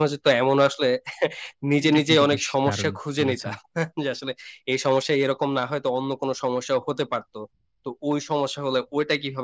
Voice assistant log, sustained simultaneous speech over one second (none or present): present